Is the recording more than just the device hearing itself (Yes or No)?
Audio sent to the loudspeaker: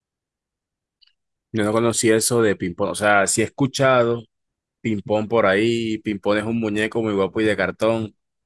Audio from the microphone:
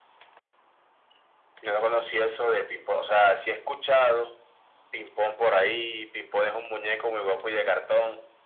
No